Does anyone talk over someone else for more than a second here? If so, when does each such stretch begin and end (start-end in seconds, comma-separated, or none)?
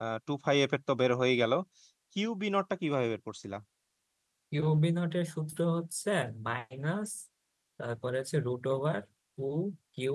none